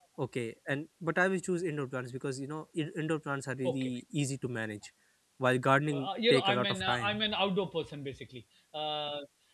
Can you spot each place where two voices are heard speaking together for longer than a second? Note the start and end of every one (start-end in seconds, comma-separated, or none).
5.9-7.2